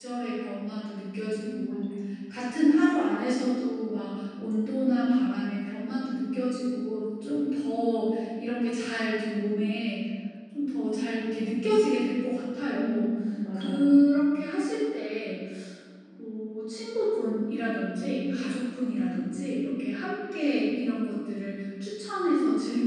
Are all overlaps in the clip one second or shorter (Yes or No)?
Yes